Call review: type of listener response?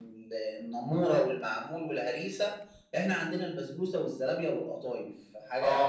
taking over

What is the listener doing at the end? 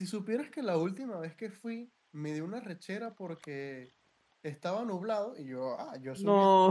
listening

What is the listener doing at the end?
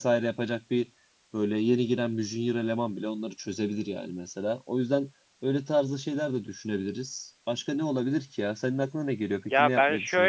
taking over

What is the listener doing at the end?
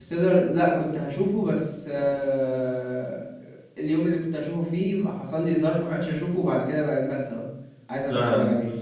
taking over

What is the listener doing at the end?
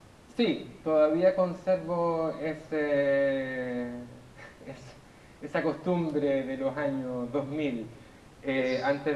listening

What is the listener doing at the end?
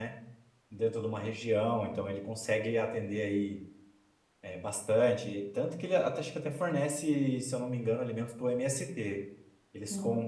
listening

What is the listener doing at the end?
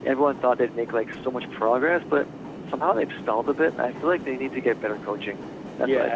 taking over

